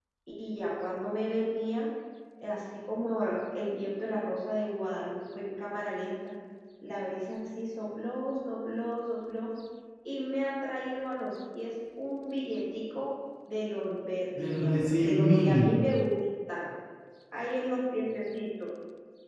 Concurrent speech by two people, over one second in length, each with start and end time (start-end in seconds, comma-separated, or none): 14.4-15.8